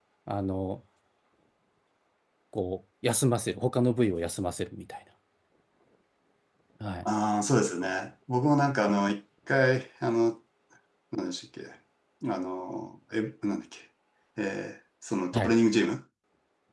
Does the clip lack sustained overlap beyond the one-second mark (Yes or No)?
Yes